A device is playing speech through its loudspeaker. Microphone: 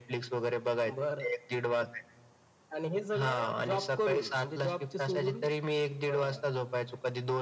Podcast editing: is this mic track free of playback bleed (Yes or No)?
No